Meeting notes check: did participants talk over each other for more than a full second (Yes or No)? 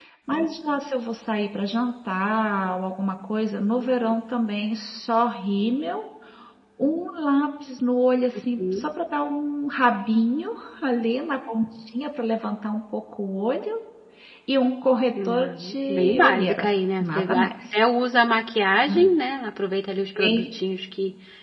Yes